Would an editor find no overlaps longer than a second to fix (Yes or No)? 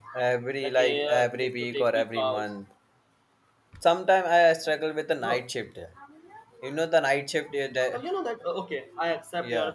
No